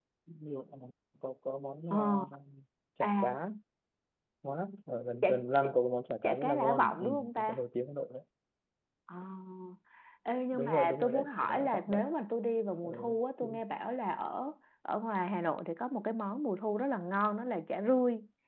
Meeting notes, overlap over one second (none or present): present